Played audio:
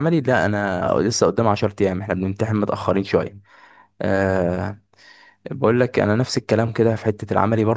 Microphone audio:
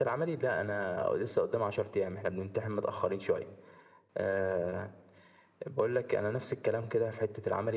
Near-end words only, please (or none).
none